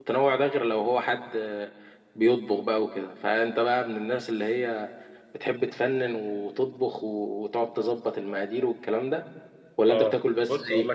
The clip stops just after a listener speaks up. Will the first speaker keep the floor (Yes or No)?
No